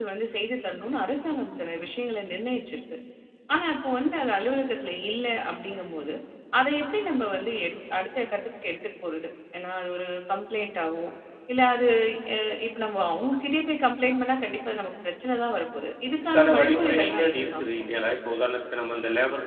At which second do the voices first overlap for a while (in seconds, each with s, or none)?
16.2 s